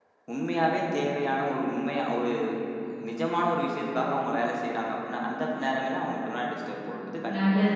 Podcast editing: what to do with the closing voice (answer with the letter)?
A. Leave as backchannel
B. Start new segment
B